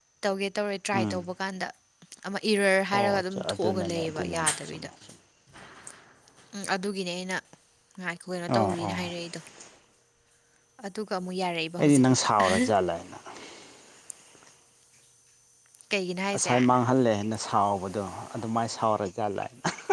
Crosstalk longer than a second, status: present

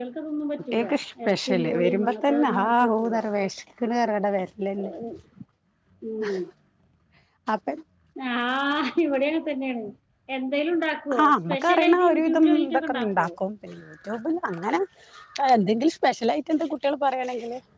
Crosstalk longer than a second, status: present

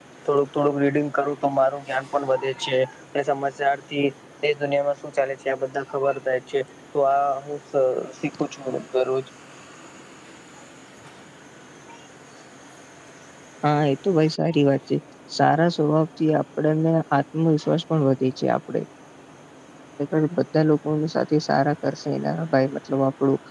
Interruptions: none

